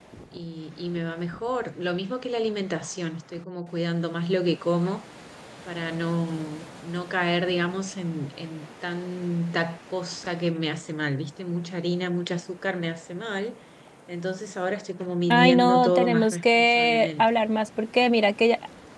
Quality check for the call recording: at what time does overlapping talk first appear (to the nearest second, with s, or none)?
15 s